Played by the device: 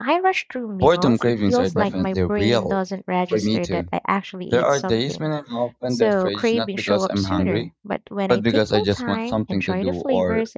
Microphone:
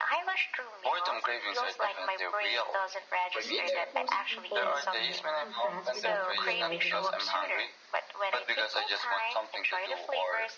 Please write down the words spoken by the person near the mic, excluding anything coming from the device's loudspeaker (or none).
Do you think most people eat too fast without realizing it?